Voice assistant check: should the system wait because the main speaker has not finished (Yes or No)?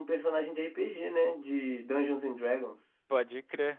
No